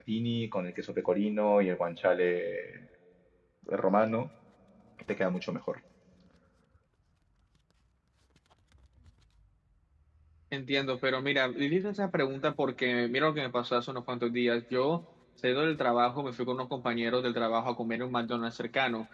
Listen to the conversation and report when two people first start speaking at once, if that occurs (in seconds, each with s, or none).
none